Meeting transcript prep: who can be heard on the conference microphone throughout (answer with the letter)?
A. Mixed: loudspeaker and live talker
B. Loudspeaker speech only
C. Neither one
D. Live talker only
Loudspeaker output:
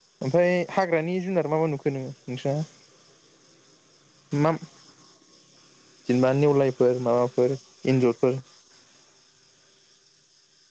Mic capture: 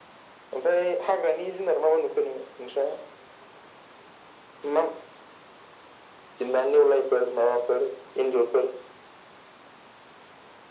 B